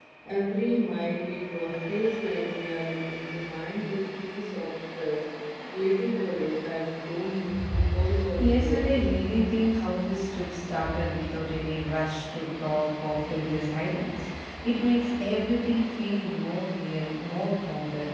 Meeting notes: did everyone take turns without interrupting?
No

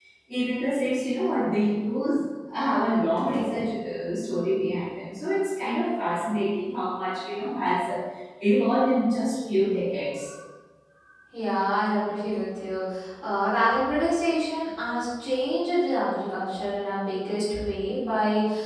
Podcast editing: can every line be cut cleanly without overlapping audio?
Yes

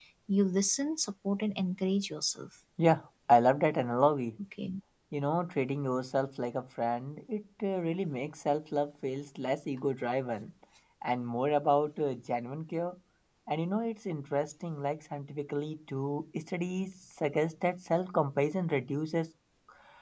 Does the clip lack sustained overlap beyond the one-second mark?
Yes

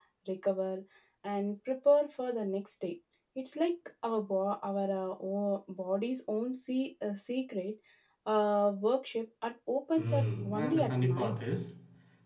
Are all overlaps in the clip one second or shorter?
No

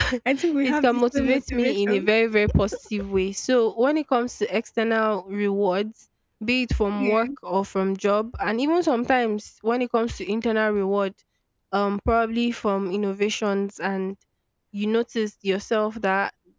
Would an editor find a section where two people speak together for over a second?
Yes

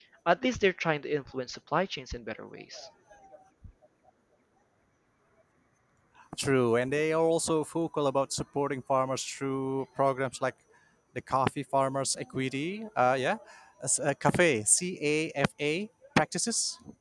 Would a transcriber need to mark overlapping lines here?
No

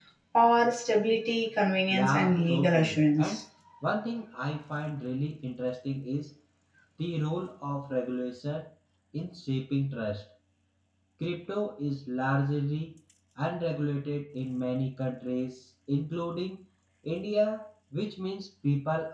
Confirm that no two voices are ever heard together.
No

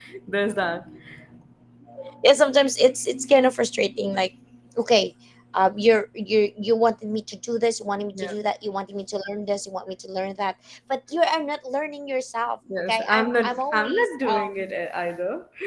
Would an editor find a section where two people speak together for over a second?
Yes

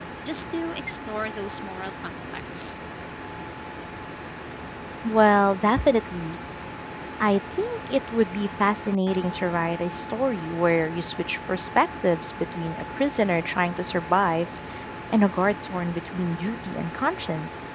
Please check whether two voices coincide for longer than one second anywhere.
No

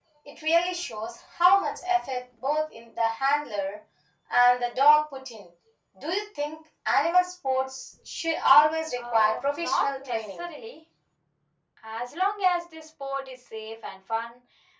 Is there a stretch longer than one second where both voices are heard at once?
Yes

